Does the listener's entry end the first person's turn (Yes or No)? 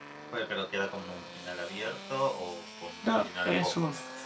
Yes